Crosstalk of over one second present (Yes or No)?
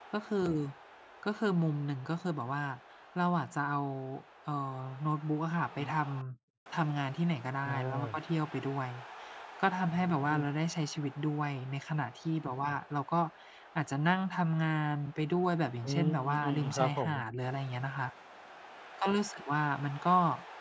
Yes